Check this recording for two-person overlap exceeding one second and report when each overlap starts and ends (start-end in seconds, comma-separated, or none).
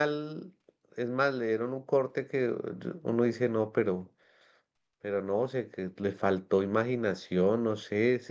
none